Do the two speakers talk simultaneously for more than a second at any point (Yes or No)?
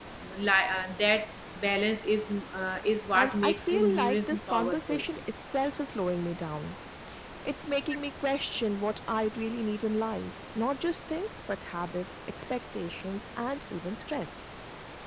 Yes